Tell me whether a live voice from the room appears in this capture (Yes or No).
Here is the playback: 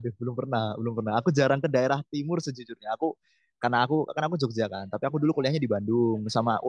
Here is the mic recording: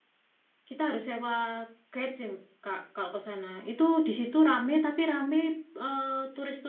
Yes